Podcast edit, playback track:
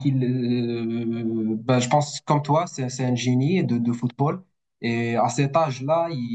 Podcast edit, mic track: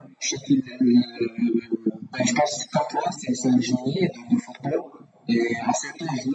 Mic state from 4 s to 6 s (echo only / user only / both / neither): echo only